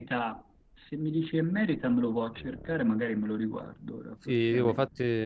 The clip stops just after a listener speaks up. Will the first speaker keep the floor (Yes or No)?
No